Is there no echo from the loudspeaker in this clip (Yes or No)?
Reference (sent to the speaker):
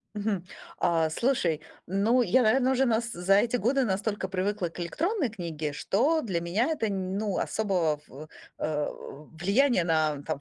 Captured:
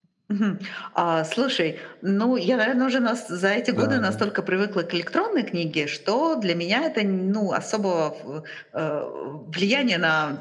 No